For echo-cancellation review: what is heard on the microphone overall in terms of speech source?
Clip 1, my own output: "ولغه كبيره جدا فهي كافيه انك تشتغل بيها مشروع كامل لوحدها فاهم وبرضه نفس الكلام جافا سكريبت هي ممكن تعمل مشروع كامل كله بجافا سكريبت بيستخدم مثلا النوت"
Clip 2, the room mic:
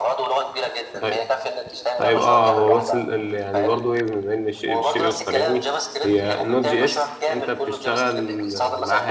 both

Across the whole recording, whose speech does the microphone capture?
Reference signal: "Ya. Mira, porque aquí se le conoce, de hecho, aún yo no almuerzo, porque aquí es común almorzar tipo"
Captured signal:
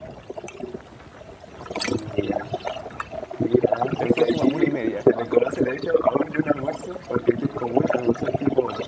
both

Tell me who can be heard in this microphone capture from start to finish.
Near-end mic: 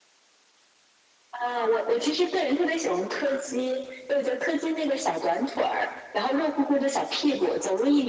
echo only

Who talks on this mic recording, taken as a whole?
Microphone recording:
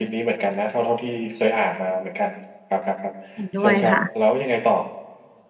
both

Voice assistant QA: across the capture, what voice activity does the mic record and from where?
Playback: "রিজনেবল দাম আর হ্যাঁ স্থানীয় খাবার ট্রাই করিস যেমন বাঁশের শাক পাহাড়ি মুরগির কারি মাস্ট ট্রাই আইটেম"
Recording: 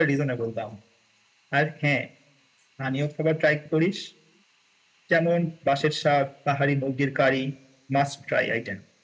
echo only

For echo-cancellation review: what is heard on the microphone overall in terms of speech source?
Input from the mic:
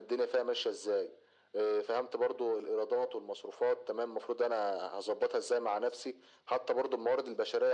echo only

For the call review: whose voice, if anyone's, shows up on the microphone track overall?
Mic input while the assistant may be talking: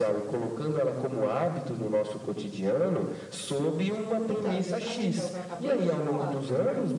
both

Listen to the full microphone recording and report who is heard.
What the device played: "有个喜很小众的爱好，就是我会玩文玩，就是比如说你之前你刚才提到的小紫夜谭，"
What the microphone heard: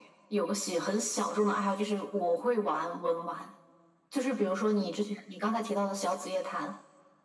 echo only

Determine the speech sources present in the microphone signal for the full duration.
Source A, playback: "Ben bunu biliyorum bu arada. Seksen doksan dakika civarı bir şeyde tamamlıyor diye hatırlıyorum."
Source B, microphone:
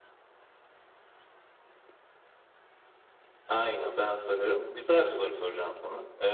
user only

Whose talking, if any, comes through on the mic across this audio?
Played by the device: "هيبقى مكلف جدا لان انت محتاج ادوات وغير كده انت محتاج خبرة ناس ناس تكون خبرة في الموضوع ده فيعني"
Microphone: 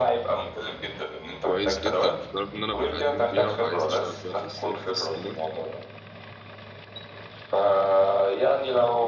both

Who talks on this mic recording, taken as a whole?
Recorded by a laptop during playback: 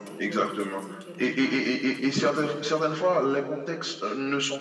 both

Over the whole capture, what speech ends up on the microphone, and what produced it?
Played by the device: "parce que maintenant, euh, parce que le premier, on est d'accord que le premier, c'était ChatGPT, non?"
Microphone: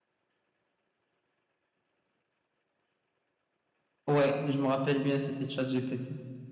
user only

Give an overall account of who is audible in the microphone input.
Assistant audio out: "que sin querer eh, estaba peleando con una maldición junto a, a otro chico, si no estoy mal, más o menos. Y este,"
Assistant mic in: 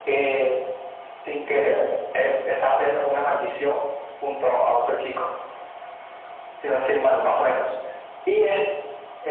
echo only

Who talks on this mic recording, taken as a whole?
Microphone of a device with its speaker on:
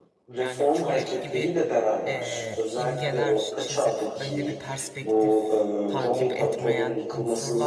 both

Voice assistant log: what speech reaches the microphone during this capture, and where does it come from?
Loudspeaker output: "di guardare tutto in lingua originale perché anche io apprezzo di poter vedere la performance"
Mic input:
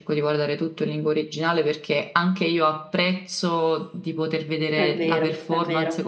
both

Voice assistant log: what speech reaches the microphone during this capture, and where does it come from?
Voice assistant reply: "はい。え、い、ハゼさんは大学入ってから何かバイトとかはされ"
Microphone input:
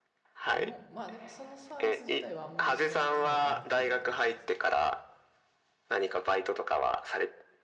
both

